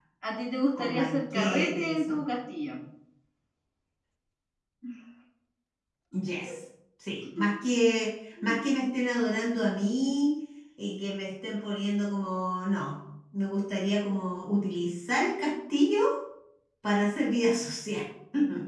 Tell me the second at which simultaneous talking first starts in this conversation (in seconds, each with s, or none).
0.8 s